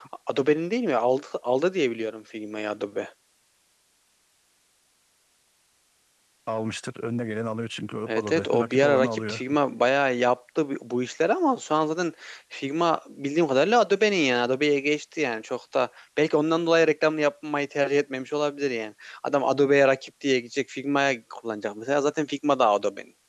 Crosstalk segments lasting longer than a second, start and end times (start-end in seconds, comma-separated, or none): 8.1-9.4